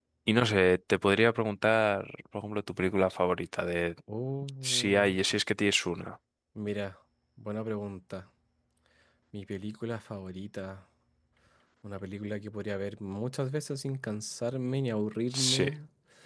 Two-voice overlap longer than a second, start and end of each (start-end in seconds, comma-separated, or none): none